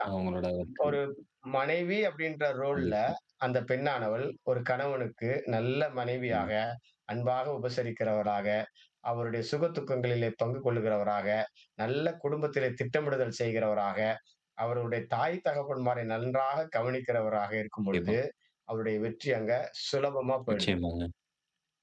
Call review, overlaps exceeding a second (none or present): none